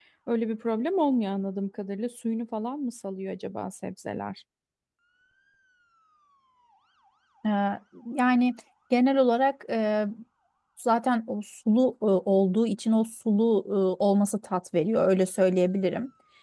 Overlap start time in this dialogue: none

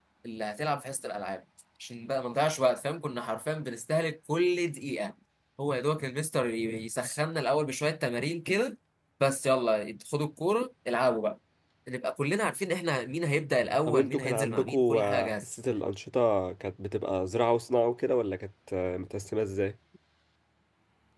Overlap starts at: 13.9 s

